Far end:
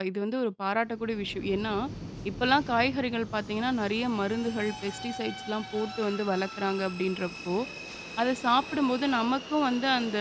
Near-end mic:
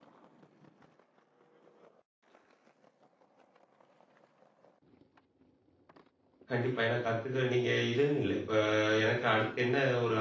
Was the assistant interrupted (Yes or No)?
Yes